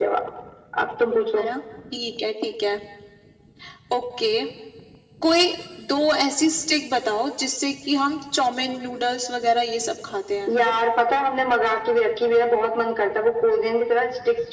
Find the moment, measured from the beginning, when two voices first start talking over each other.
none

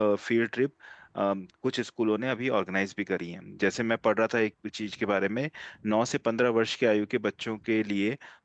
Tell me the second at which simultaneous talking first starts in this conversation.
none

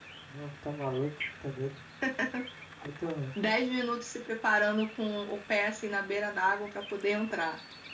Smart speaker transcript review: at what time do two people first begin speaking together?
none

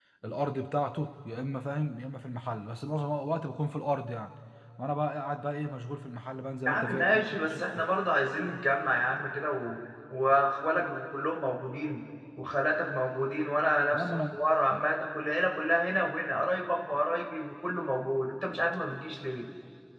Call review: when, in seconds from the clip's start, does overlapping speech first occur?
6.7 s

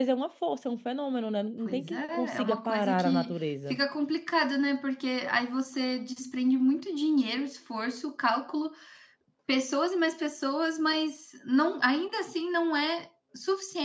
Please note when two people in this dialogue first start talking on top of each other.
1.6 s

